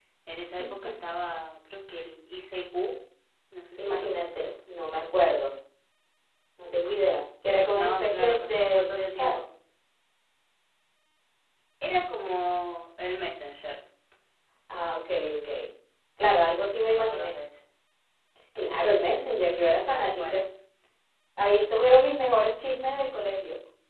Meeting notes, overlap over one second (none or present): present